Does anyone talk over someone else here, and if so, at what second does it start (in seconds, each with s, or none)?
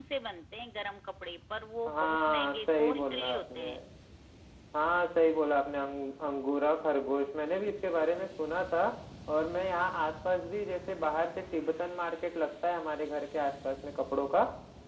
1.9 s